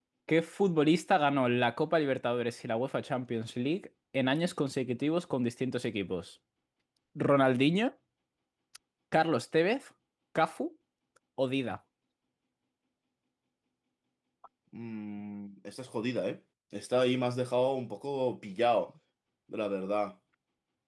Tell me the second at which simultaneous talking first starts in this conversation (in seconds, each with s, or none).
none